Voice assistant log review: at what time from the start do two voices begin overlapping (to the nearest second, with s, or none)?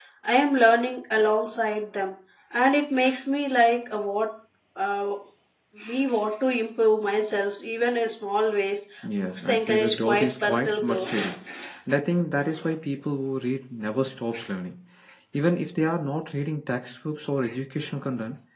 9 s